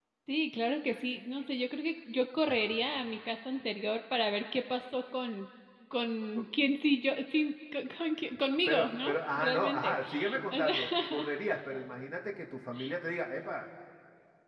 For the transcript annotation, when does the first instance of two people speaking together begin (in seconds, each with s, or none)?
8.7 s